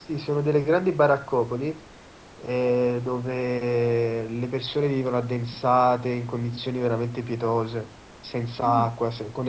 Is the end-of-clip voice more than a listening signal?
No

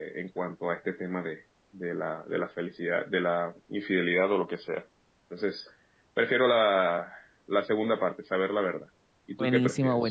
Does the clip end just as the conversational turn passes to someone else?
Yes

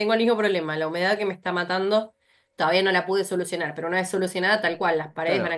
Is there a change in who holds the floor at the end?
Yes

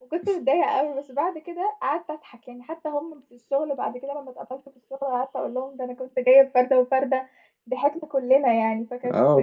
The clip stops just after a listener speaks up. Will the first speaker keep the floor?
No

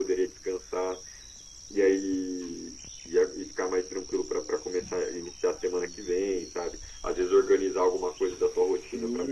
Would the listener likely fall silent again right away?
Yes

